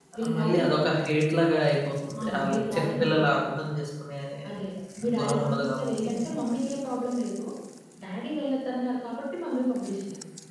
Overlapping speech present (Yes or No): Yes